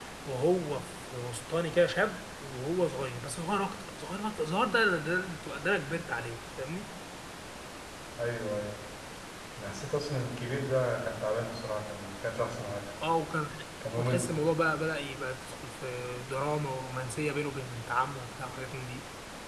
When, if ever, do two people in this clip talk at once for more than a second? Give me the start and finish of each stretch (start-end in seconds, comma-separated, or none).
none